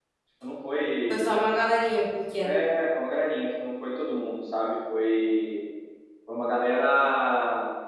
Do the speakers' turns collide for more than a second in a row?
No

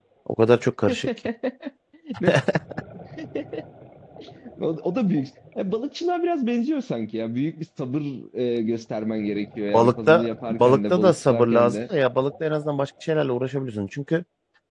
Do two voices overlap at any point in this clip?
Yes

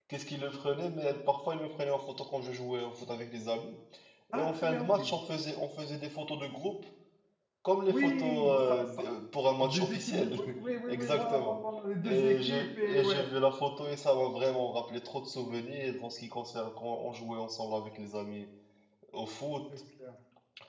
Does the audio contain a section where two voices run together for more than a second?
Yes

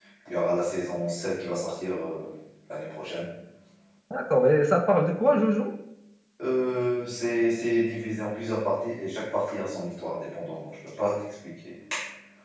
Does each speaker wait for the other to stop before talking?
Yes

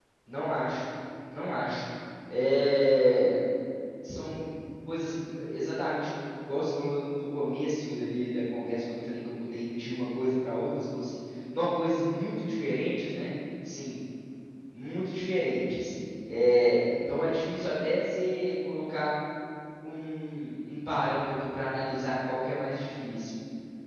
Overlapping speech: No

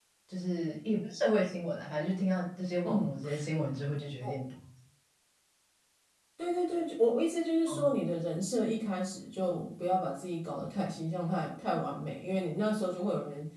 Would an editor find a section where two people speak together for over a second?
No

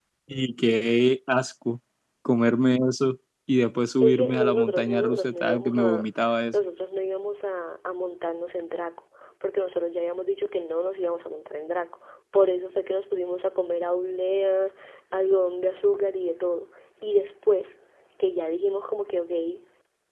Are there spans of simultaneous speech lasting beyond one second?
Yes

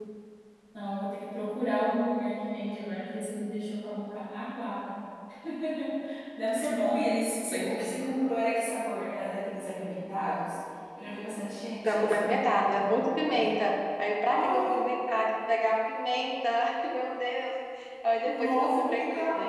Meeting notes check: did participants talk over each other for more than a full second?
Yes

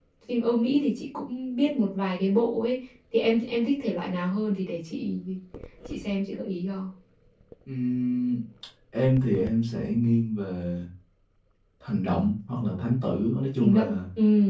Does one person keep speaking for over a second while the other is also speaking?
No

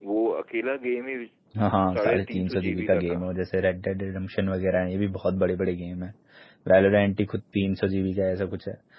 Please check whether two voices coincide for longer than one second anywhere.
Yes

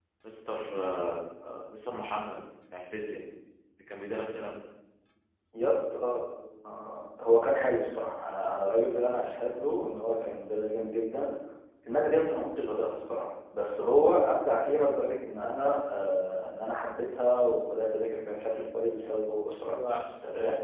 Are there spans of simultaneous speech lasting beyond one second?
No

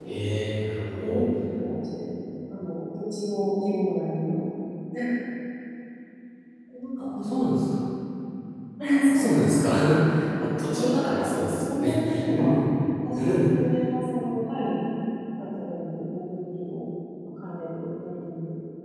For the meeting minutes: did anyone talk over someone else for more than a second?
Yes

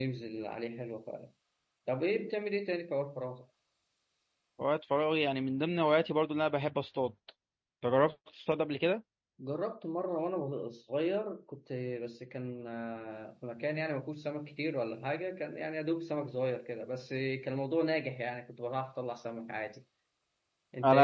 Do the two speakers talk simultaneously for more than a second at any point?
No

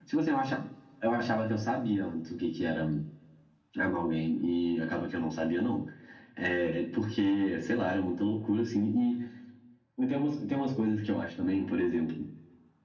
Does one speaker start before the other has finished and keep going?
No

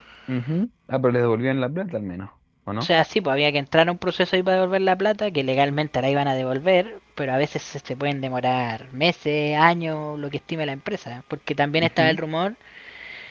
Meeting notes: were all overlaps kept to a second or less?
Yes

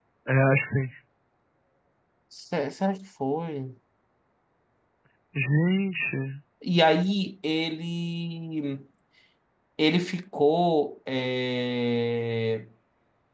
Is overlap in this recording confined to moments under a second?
Yes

